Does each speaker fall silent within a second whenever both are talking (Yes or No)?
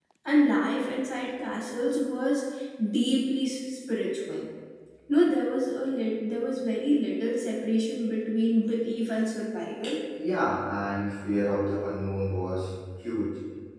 Yes